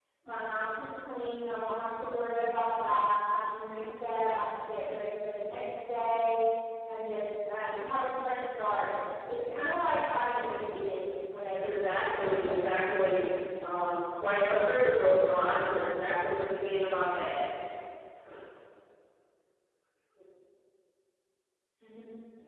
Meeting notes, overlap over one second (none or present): present